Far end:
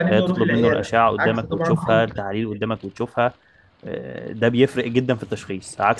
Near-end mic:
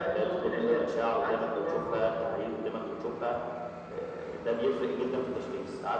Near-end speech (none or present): none